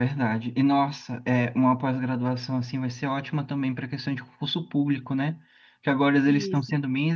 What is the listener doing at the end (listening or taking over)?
listening